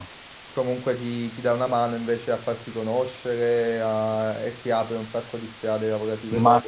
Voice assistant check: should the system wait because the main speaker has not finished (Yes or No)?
No